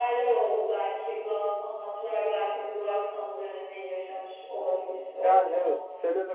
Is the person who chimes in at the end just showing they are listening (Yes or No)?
No